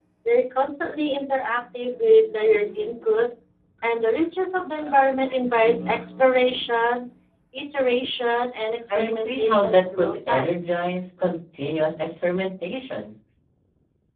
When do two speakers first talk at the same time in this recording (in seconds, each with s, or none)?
8.9 s